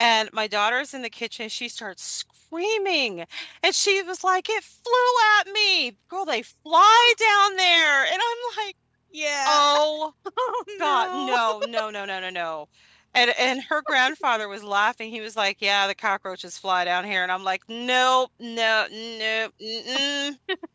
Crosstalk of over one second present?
No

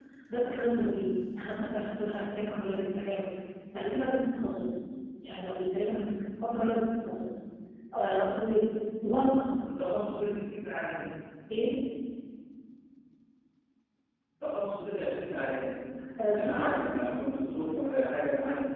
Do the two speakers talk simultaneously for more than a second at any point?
No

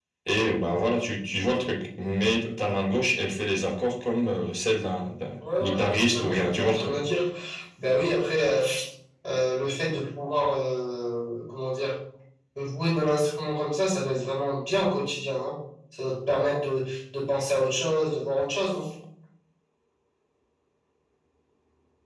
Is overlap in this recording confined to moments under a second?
No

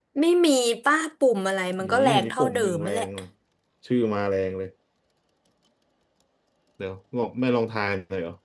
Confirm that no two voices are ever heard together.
No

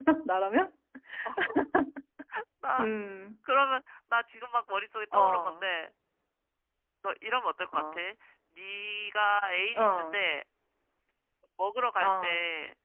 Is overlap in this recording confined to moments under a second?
Yes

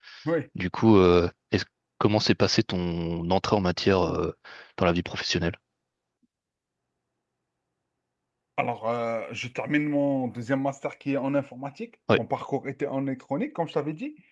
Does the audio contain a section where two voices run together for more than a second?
No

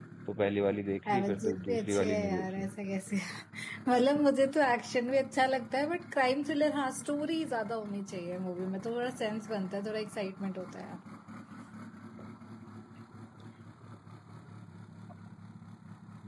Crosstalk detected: Yes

